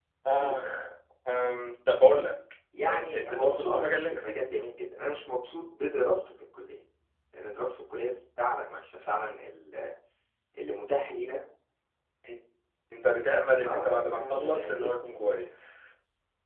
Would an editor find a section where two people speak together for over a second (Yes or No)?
Yes